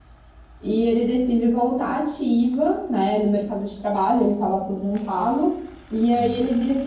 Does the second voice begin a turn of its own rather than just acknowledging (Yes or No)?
No